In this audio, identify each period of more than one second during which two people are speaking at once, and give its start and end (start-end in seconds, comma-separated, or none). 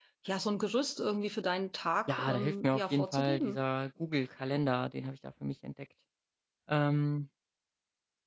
2.1-3.6